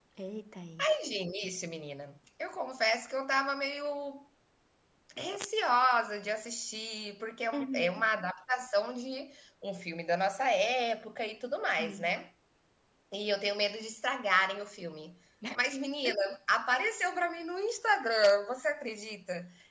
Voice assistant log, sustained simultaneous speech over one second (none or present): none